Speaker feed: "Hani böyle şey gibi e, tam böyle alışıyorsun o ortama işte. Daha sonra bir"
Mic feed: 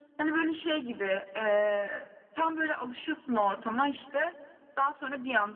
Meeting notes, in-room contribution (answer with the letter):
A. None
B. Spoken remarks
A